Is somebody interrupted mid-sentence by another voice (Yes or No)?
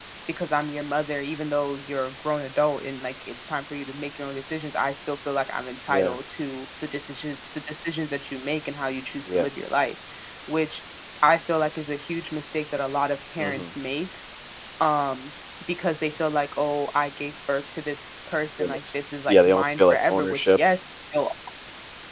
Yes